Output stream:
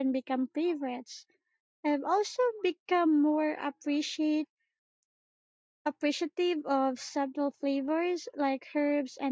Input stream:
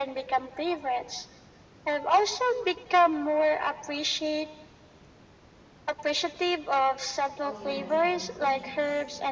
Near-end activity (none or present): present